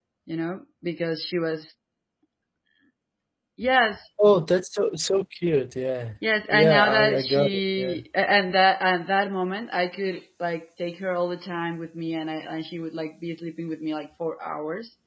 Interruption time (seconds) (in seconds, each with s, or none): 6.5 s